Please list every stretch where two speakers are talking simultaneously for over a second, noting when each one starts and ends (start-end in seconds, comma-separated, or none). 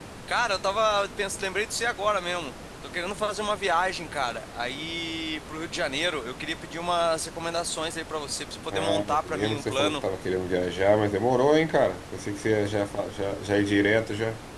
8.7-10.0